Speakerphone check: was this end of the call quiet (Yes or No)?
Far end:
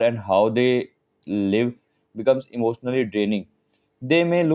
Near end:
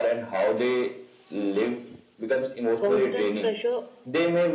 No